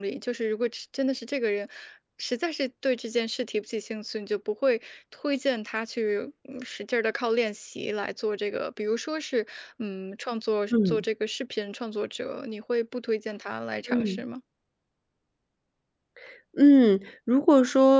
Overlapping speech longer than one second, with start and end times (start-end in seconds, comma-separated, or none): none